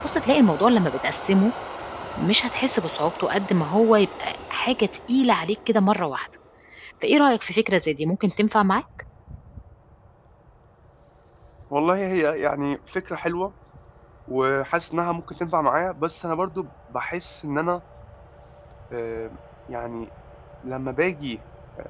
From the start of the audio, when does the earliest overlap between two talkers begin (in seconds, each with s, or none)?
none